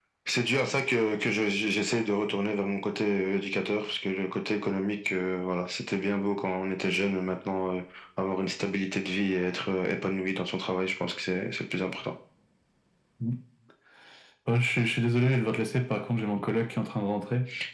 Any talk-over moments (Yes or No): No